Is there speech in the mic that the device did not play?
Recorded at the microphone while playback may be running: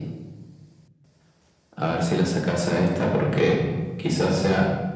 No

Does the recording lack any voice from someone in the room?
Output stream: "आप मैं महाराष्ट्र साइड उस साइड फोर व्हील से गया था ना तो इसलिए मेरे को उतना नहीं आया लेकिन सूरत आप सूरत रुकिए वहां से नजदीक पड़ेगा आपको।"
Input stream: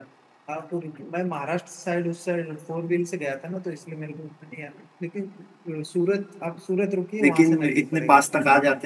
No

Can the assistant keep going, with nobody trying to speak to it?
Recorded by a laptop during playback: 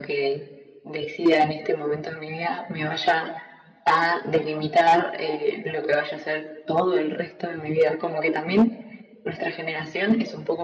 Yes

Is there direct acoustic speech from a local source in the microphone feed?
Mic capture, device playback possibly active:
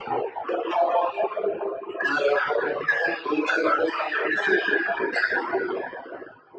No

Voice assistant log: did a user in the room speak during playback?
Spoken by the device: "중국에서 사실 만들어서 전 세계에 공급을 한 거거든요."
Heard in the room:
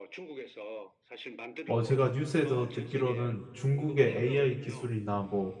Yes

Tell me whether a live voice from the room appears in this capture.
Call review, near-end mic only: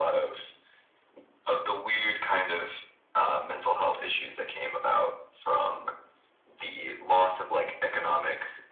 No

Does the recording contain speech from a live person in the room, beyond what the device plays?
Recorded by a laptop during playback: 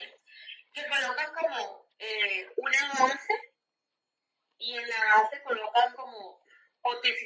No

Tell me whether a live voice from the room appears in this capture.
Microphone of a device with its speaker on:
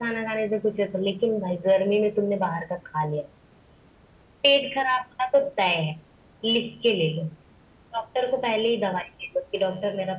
No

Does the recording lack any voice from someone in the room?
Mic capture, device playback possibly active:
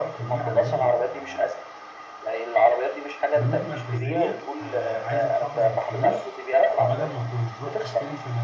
No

